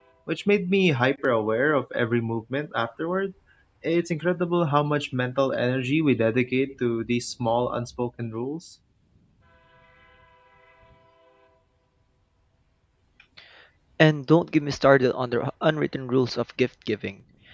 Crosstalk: none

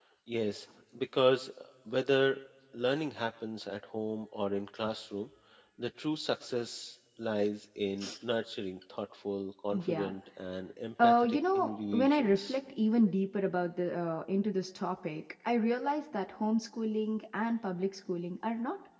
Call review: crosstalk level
present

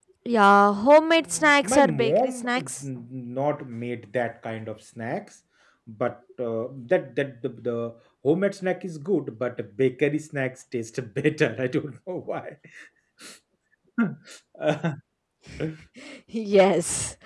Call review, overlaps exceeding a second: present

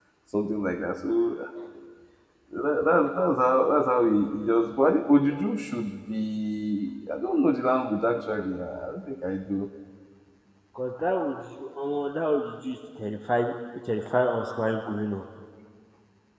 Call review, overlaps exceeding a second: none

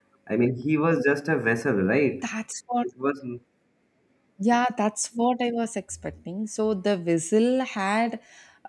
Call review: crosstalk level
none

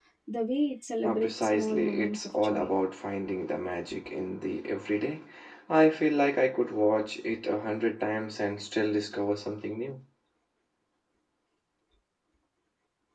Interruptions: present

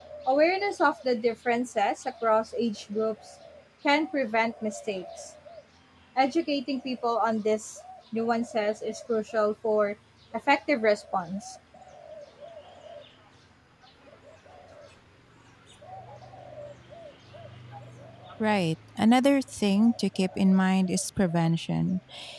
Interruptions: none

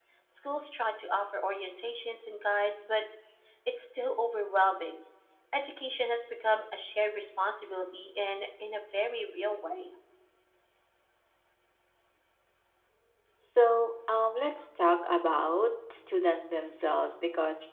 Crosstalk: none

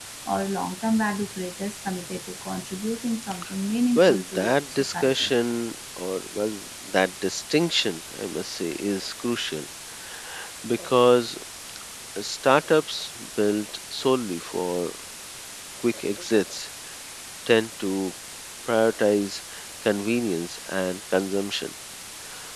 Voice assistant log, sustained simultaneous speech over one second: present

